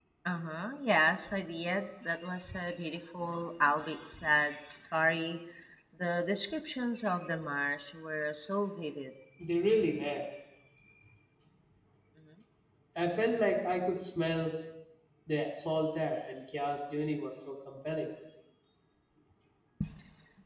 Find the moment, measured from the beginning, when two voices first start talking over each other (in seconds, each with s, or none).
none